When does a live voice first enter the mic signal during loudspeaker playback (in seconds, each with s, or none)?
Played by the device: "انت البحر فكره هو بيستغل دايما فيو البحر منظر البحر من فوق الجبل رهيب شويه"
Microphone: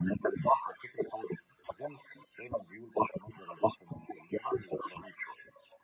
none